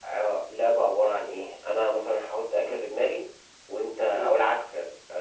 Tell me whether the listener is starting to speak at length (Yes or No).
No